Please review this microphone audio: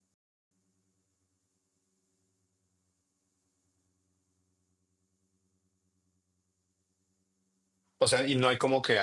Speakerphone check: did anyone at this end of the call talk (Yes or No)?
Yes